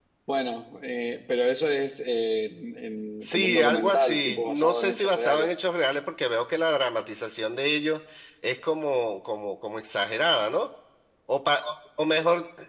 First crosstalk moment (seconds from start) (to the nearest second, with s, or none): 3 s